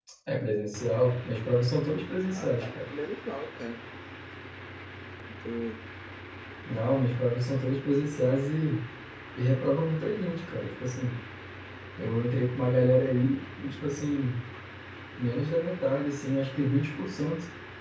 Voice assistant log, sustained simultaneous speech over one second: none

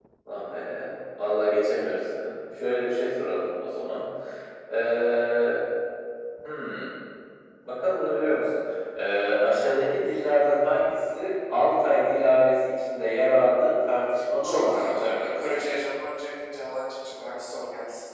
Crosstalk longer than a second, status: present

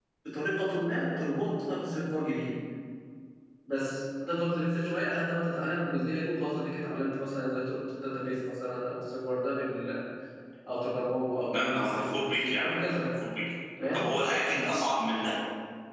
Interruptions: present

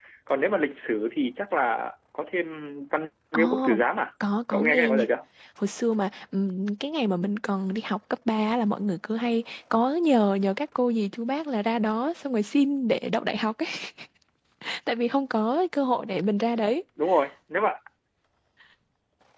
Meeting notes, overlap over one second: none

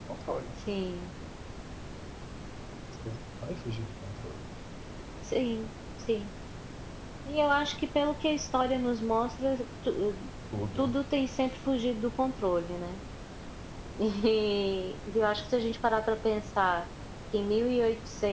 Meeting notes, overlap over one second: none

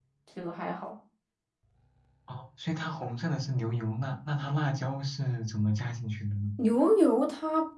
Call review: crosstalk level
none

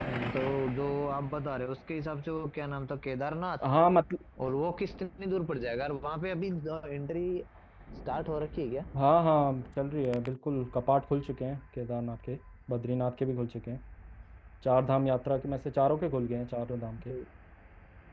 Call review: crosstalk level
none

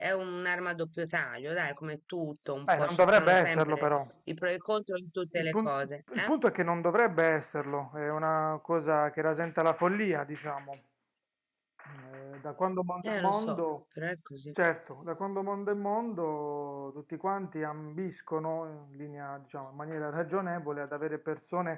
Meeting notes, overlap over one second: present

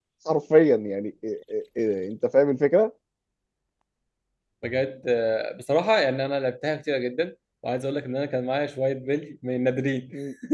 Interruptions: none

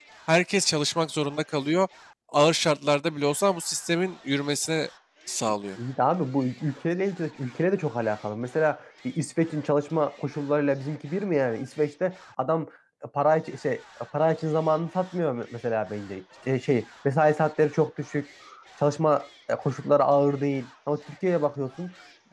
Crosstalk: none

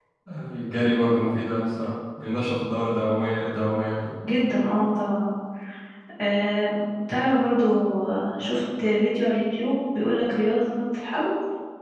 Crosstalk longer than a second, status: none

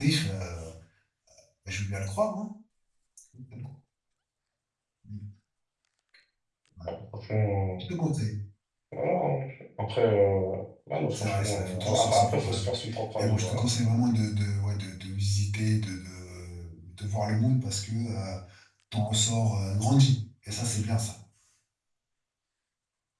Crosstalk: present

